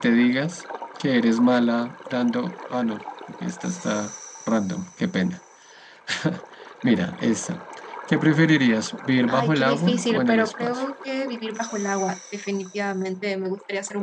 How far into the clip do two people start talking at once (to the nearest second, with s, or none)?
9 s